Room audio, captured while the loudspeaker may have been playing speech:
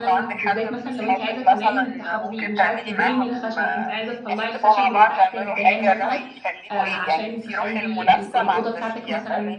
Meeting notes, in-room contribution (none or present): present